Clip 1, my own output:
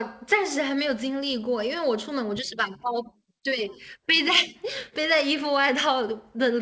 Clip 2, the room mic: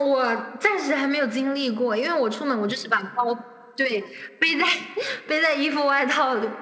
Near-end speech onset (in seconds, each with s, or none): none